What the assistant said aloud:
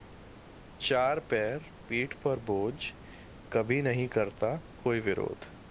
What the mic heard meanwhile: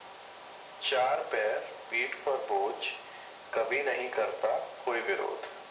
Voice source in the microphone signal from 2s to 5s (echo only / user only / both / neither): echo only